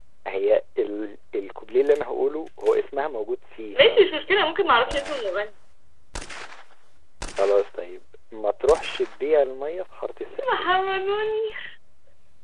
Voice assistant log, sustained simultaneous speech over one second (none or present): none